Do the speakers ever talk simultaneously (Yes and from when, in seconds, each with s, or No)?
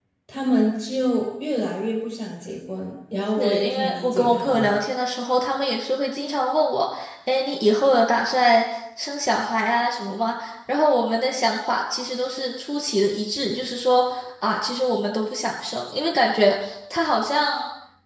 Yes, from 3.4 s